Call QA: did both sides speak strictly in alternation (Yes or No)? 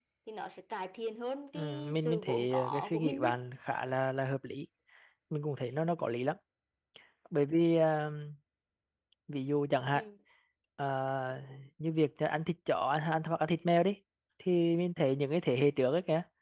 No